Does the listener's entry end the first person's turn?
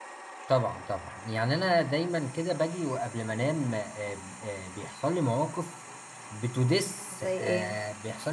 No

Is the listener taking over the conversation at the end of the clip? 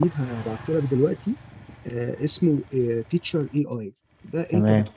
No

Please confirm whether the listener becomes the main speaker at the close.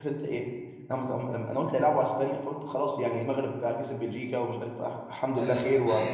Yes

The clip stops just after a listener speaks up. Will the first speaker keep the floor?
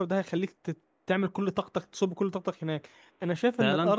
Yes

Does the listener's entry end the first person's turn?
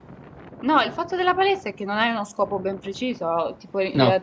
No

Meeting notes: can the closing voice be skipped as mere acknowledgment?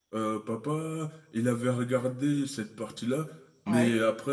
Yes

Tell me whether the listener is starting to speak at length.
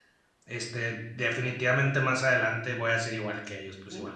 Yes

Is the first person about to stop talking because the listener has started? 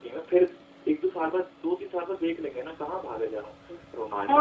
Yes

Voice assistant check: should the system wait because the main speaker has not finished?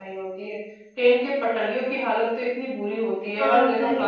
Yes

